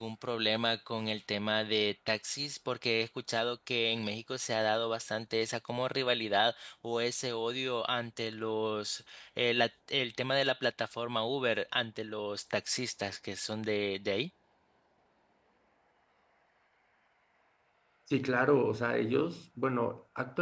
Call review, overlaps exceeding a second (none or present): none